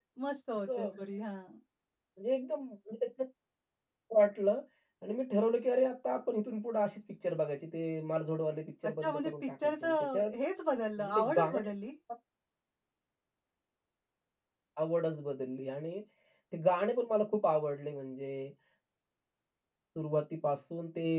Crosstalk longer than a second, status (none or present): present